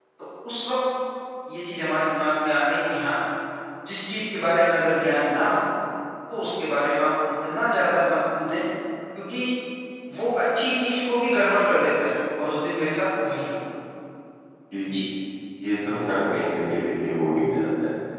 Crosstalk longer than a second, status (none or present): none